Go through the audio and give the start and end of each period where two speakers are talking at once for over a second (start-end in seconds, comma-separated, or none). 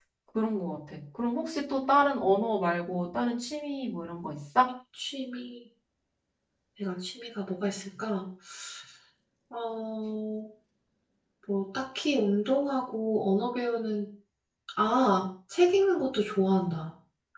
none